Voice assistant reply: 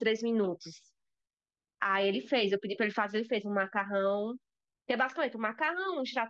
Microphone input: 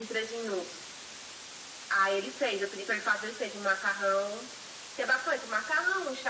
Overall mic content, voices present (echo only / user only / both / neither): echo only